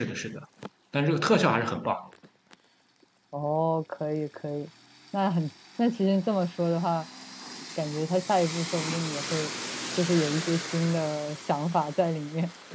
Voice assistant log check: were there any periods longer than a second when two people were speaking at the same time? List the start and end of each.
none

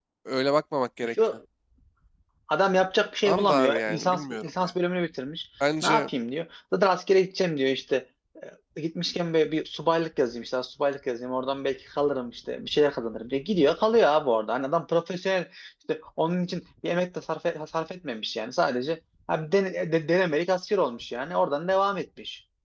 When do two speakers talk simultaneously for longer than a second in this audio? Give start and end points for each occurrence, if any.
3.2-4.7

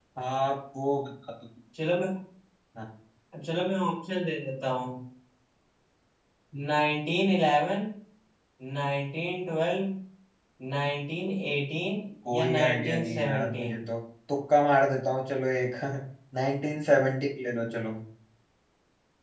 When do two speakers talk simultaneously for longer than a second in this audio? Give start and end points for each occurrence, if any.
12.3-13.8

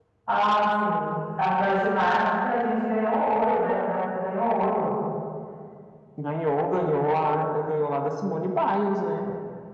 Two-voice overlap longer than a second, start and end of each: none

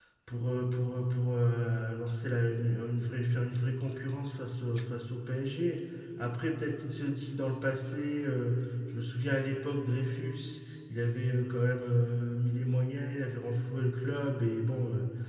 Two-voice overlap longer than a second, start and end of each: none

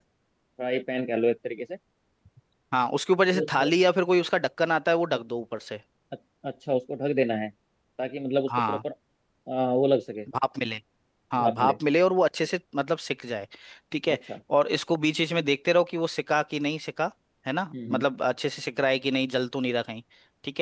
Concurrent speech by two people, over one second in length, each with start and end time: none

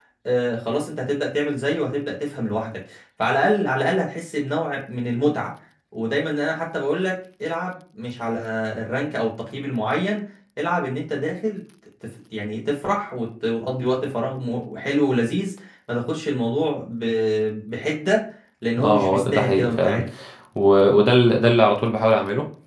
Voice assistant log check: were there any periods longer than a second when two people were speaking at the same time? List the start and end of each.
18.8-20.0

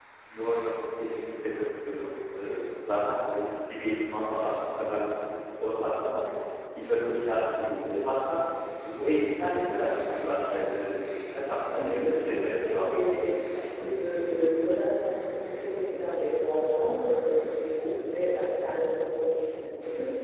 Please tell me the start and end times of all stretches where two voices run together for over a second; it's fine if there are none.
11.8-13.3

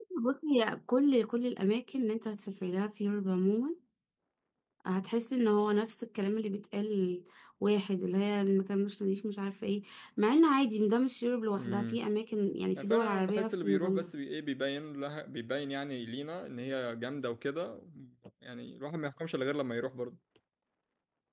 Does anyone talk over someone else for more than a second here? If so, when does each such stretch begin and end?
12.8-14.1

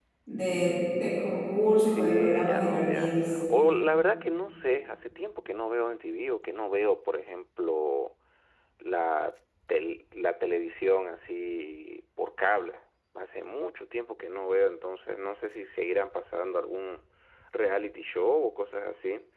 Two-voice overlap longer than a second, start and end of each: 1.8-3.4

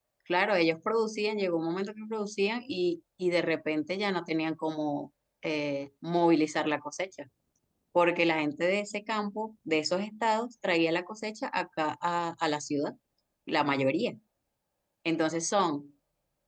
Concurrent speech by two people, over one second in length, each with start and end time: none

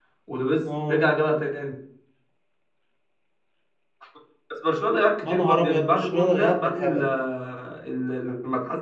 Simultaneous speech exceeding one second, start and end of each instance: 5.3-7.1

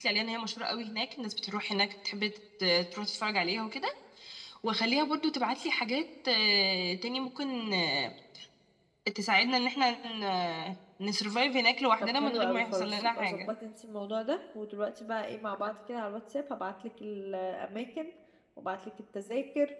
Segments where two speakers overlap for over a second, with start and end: 12.0-13.5

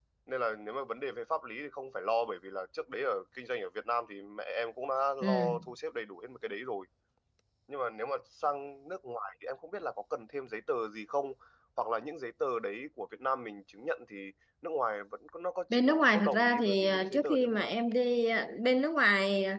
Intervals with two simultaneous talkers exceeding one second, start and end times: 15.7-17.7

